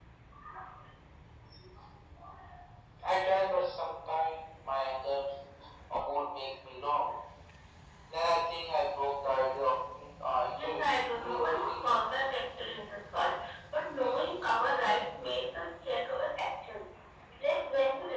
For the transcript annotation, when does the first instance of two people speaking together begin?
10.6 s

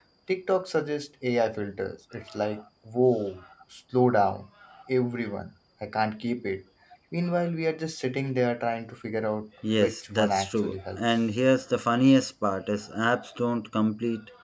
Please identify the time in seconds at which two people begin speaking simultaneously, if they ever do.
9.6 s

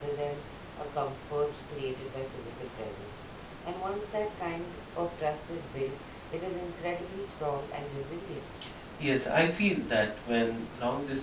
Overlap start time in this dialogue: none

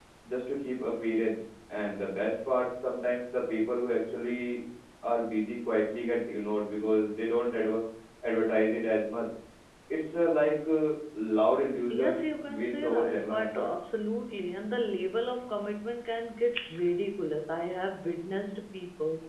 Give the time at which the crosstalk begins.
11.9 s

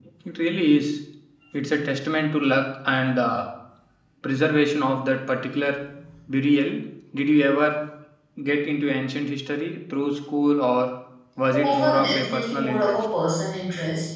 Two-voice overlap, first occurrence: 11.6 s

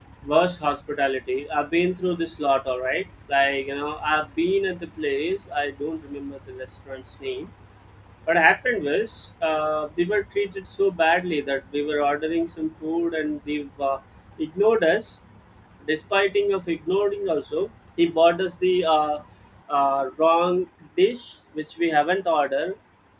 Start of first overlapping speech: none

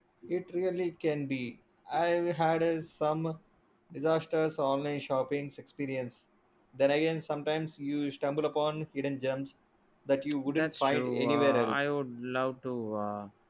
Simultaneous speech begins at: 10.5 s

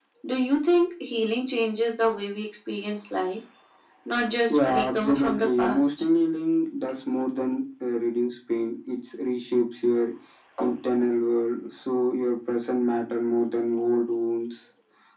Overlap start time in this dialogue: 4.5 s

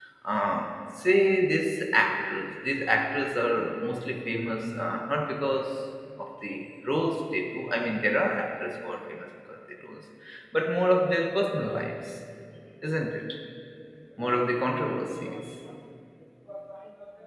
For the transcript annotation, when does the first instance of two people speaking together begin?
none

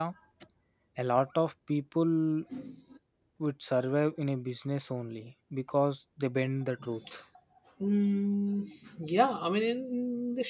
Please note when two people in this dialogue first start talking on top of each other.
none

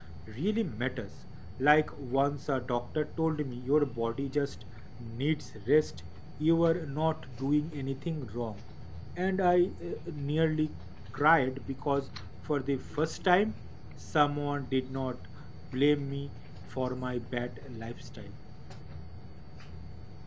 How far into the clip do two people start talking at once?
none

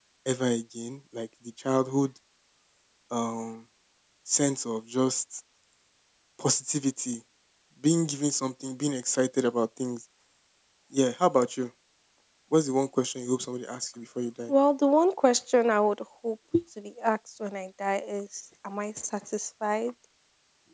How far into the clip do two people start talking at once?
none

